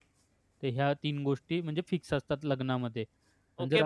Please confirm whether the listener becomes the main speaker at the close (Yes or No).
Yes